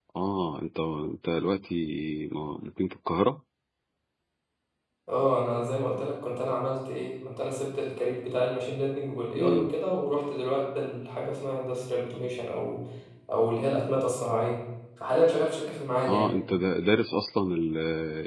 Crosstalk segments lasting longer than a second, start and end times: none

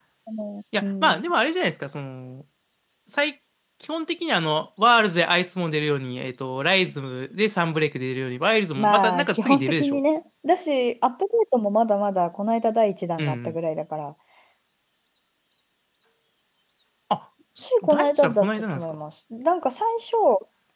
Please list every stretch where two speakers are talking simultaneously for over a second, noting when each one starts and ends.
8.8-10.0, 17.6-18.9

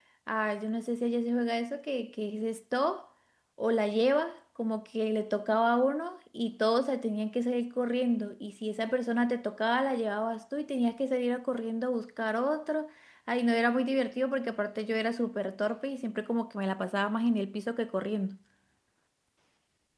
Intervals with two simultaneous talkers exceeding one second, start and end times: none

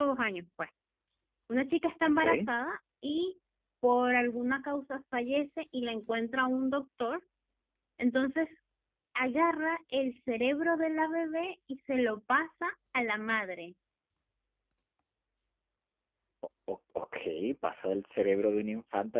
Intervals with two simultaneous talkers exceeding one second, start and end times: none

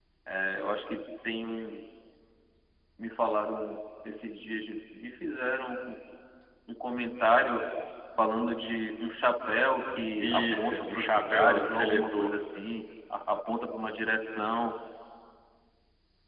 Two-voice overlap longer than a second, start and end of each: 10.2-12.3

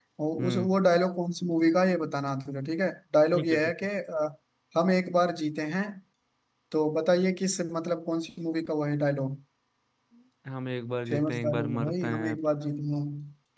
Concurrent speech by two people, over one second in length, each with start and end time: 11.1-12.4

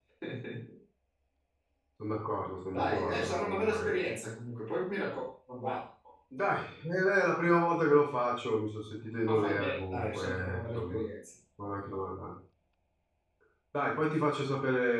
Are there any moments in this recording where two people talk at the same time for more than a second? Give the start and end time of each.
2.7-4.0, 9.3-11.0

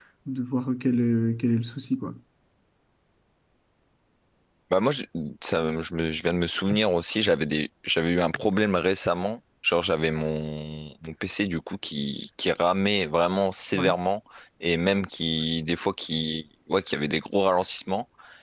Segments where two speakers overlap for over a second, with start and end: none

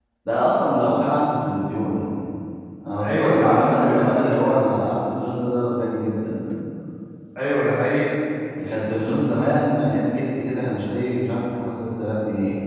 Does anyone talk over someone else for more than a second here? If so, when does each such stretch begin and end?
3.0-4.6

